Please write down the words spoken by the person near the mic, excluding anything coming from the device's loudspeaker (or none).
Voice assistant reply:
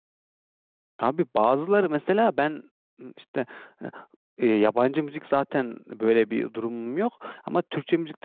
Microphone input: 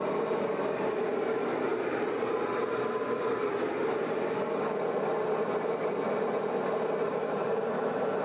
none